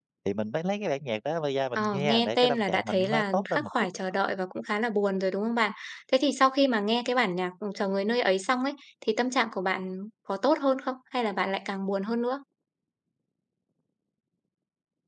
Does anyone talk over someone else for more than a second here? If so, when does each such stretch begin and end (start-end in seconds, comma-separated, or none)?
1.8-3.7